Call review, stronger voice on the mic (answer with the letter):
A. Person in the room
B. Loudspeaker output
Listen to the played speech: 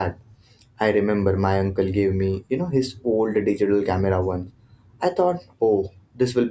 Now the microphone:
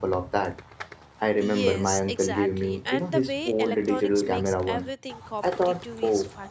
B